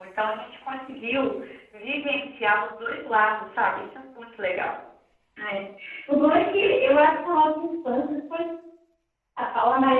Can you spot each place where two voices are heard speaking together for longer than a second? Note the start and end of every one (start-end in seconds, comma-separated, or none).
none